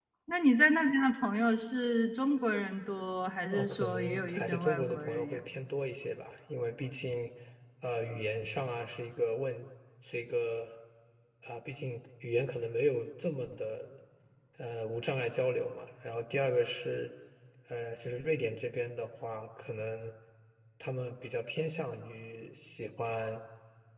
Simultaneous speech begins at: 3.5 s

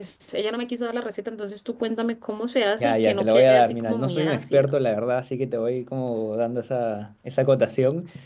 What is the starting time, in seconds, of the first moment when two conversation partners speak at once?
2.8 s

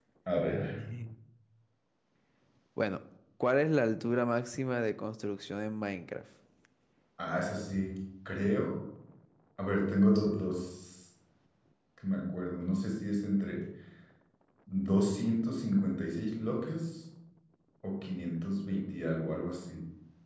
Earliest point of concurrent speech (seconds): none

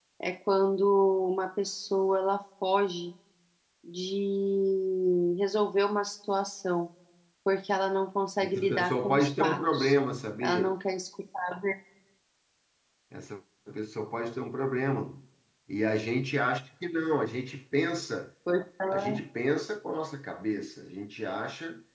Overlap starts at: 8.4 s

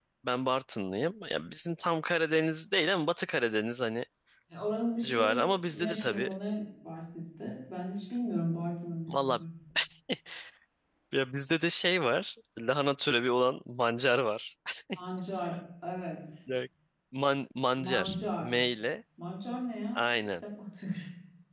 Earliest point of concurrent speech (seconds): 5.0 s

